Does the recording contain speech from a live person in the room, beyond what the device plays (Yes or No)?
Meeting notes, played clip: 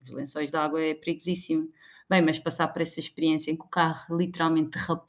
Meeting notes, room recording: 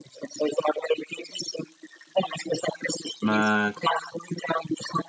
Yes